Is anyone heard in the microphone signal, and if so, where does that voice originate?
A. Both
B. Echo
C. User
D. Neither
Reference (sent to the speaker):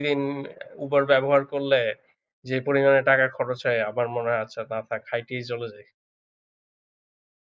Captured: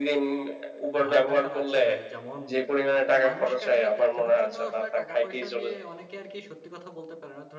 A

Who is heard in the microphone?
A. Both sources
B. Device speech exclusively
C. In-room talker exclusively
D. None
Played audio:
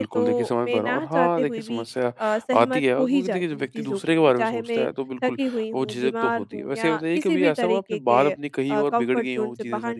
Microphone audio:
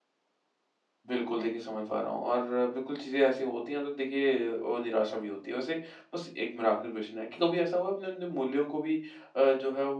C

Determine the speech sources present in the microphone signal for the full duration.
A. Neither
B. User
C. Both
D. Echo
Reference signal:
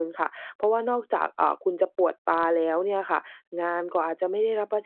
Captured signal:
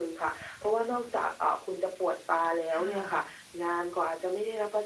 C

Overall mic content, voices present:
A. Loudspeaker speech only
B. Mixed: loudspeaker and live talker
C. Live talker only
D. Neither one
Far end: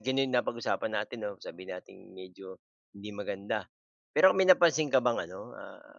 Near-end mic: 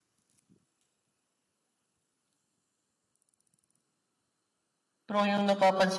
C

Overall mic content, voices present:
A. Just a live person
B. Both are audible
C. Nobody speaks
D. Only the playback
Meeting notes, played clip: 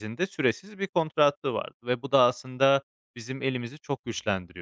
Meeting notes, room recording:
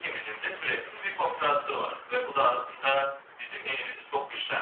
D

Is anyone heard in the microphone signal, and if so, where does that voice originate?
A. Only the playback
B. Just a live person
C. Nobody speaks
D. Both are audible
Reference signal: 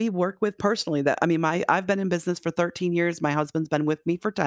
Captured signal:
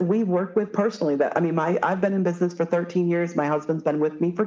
A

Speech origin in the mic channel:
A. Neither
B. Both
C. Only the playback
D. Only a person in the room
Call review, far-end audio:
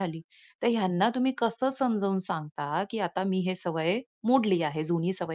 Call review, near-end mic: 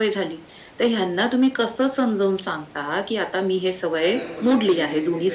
B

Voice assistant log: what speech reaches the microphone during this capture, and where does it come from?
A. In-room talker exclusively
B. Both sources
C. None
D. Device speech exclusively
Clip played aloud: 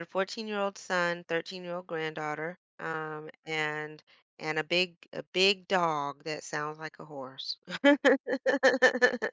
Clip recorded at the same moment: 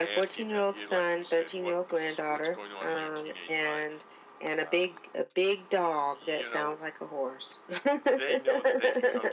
B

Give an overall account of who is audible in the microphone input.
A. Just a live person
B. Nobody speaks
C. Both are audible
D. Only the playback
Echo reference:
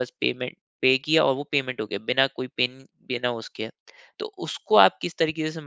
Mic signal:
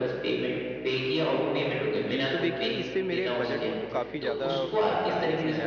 C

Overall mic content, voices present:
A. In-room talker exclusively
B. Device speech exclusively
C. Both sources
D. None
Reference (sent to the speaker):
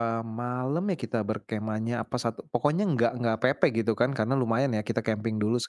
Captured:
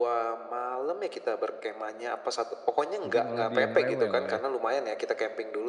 C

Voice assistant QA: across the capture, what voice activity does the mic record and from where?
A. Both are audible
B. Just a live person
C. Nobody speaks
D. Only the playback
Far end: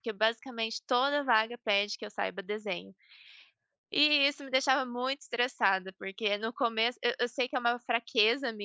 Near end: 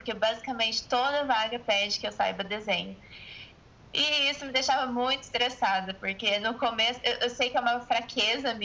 D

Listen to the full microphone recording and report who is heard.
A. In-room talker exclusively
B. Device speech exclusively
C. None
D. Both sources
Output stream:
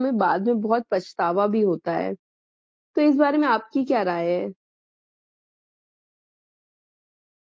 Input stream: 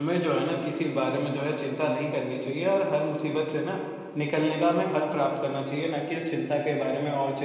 A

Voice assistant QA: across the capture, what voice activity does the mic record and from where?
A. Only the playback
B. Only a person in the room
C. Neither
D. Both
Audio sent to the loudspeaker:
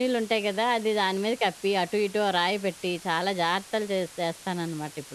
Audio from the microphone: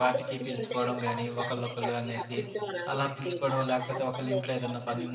D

